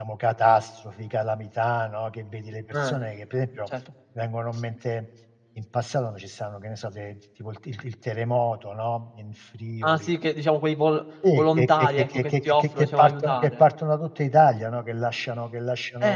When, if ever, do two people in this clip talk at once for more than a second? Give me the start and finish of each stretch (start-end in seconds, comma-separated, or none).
11.3-13.6